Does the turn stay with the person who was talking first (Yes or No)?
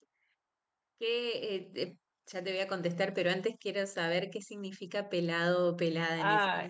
No